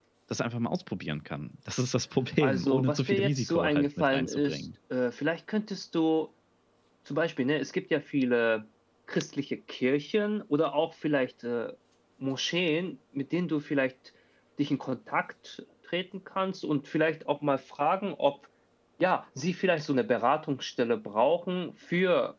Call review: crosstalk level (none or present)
present